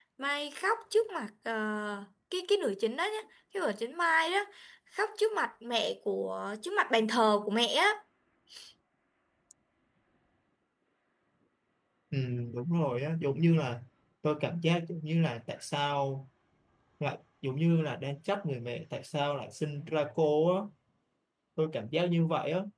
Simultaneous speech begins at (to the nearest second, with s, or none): none